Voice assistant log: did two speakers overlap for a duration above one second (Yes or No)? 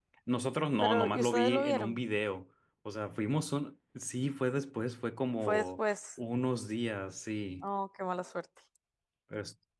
Yes